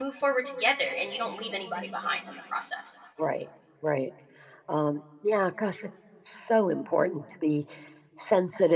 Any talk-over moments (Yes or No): No